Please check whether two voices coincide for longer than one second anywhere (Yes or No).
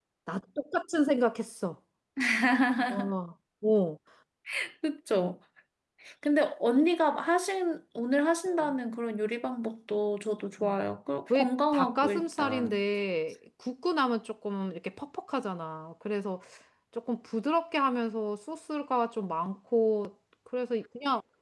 Yes